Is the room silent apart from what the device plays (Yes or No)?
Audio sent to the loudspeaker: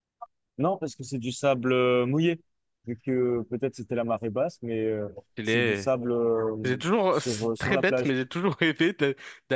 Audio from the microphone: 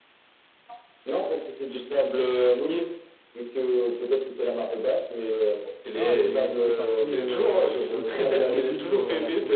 No